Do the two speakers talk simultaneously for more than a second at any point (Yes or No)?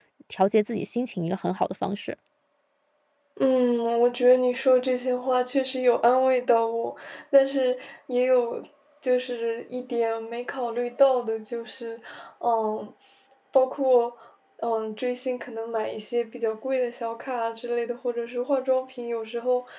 No